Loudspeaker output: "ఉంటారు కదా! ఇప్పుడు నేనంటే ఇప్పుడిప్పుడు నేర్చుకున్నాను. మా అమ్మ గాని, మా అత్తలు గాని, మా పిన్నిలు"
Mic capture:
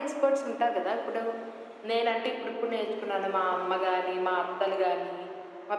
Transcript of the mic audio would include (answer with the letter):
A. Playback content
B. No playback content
A